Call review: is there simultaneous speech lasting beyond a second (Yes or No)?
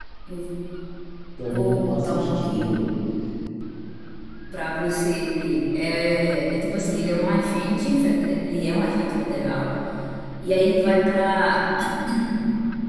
Yes